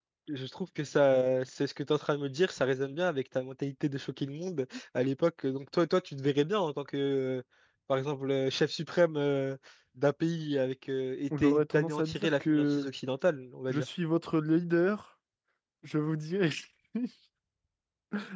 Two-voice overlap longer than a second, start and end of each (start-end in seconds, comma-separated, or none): 11.4-12.9